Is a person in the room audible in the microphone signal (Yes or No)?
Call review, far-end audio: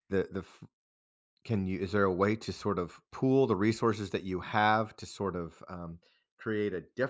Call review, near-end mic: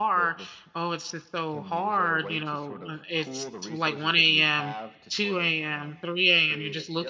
Yes